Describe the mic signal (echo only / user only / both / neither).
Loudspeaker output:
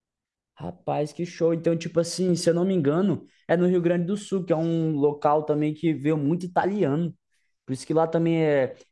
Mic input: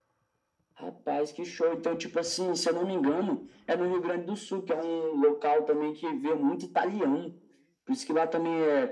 echo only